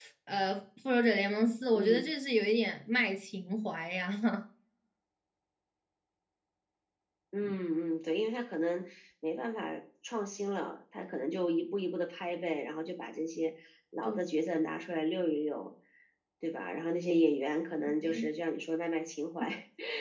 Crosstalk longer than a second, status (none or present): none